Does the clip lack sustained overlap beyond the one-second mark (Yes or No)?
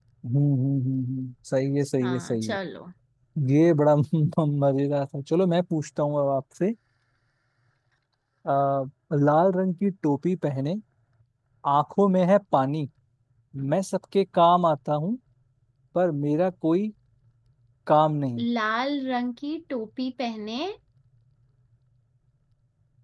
Yes